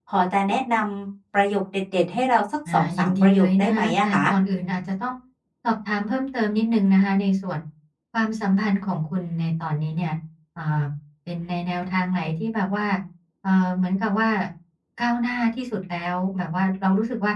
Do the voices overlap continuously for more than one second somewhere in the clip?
Yes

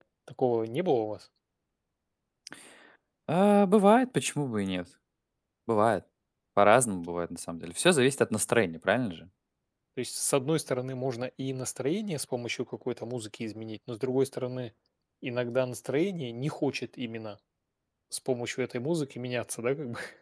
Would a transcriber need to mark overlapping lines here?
No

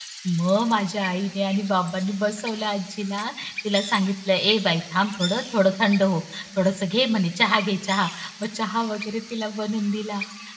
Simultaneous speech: No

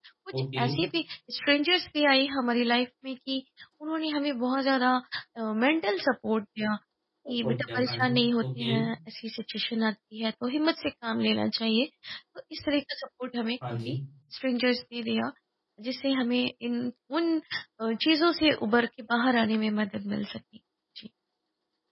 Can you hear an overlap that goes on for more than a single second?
Yes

